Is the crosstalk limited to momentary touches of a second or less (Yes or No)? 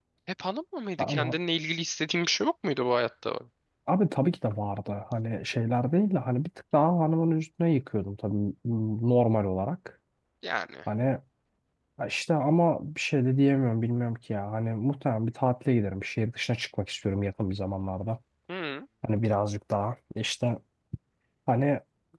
Yes